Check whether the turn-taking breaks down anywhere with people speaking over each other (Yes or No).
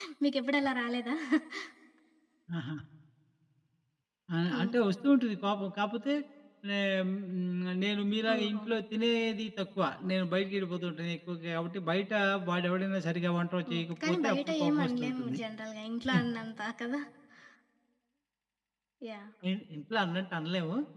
Yes